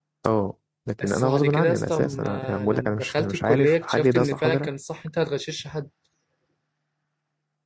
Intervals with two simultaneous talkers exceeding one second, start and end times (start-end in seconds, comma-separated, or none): 1.0-4.7